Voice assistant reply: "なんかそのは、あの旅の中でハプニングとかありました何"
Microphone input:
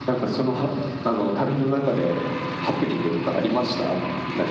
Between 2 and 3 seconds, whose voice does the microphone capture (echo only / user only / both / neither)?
echo only